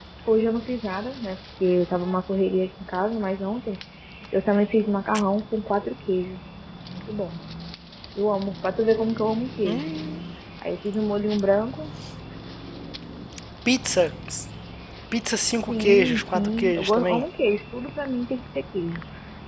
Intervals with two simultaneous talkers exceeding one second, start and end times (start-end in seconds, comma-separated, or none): 15.7-17.2